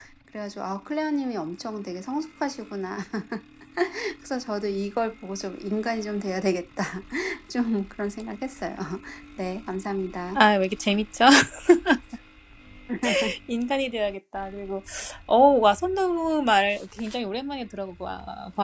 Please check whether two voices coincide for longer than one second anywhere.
No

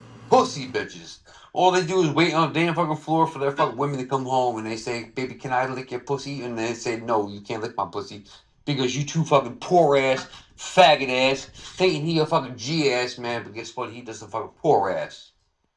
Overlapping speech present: No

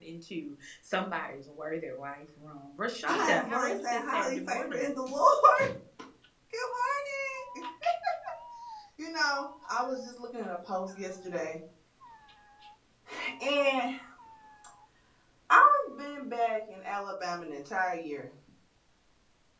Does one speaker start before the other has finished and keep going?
Yes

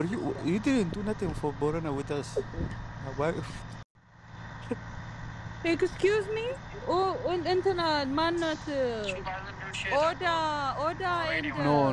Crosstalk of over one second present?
No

